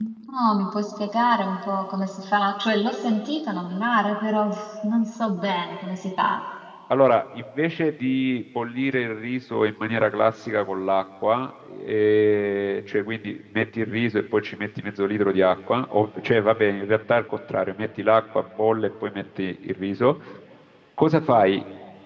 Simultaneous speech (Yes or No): No